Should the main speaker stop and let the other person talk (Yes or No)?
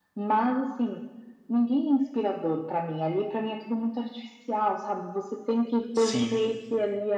No